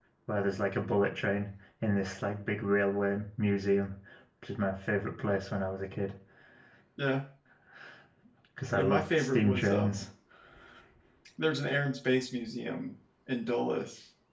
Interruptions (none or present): present